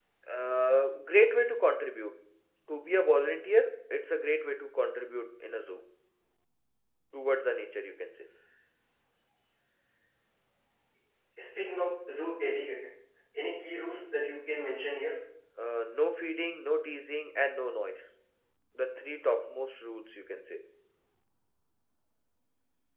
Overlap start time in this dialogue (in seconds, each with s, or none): none